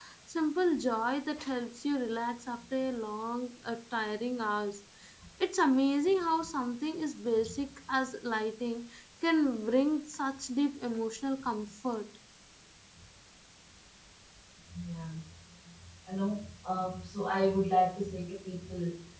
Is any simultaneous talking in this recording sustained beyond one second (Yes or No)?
No